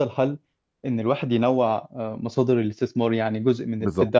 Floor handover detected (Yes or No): No